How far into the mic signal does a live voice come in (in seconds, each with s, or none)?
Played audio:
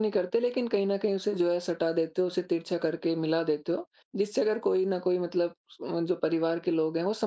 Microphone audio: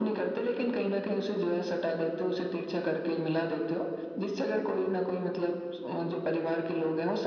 none